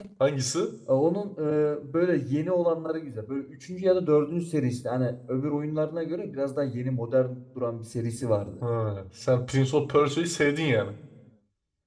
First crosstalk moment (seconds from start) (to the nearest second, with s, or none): none